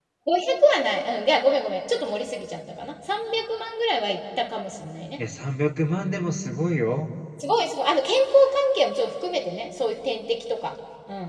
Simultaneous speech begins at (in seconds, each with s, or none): none